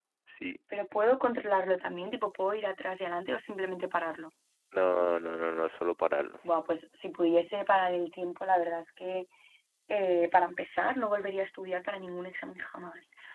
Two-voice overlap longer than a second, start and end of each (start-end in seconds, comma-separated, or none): none